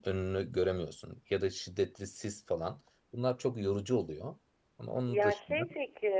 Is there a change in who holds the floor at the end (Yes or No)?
Yes